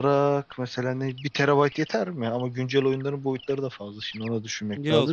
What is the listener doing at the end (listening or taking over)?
taking over